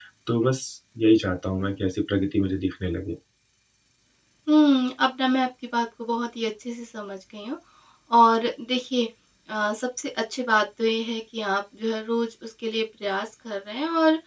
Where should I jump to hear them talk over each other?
none

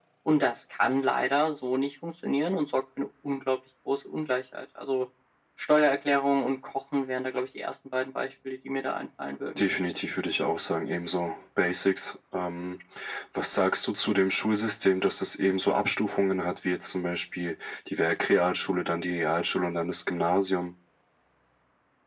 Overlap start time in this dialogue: none

